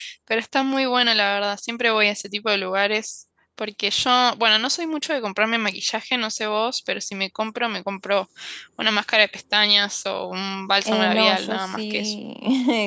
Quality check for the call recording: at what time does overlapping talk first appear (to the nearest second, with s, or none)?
11 s